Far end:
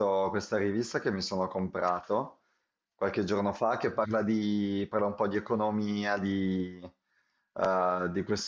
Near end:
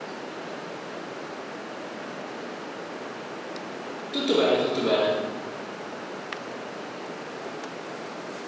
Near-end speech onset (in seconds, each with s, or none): 4.1 s